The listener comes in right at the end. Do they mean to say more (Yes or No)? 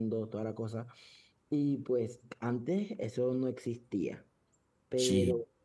No